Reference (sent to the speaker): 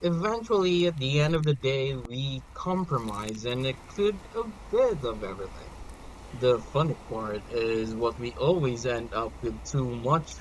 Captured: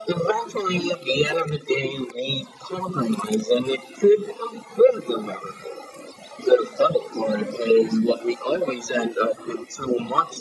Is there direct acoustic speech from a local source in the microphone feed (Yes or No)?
No